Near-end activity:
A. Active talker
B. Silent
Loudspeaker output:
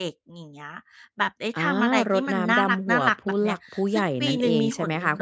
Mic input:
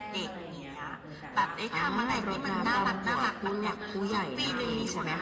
A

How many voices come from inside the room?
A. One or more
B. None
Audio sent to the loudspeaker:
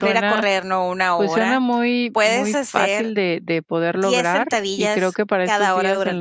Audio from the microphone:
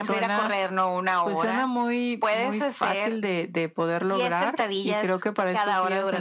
B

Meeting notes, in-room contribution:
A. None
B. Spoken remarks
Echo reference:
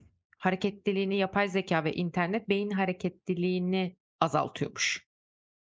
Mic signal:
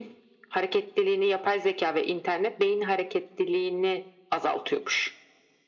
A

